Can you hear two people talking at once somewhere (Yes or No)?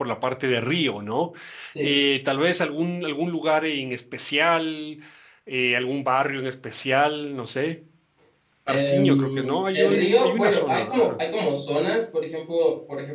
Yes